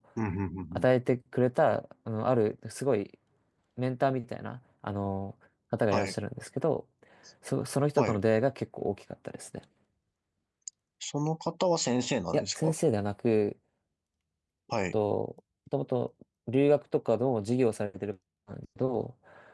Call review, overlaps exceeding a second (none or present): none